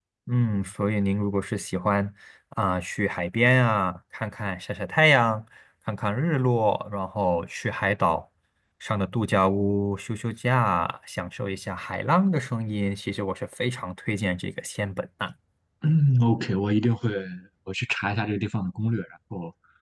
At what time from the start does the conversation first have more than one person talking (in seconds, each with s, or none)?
none